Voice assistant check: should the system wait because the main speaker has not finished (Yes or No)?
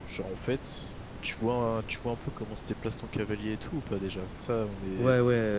No